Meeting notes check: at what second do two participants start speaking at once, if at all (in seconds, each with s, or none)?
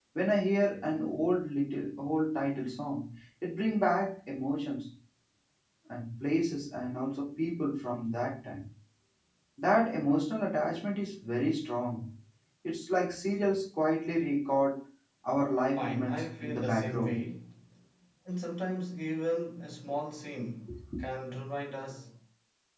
15.8 s